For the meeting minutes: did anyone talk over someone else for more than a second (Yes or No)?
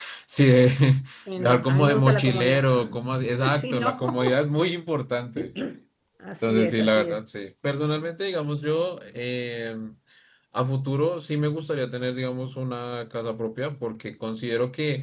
Yes